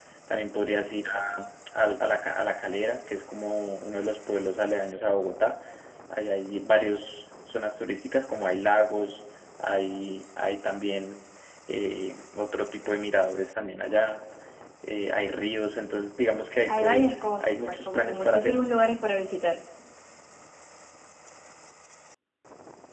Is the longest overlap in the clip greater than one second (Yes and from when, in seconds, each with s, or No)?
Yes, from 16.7 s